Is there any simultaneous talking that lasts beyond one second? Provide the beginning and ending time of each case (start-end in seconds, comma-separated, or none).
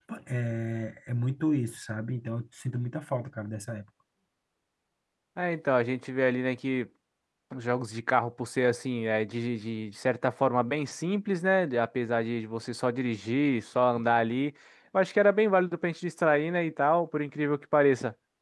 none